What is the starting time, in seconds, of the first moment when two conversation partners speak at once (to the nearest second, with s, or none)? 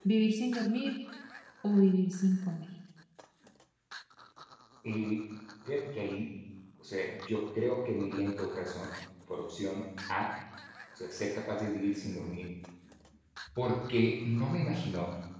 none